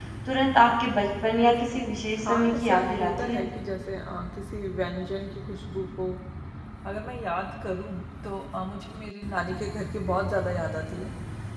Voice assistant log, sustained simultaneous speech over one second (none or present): present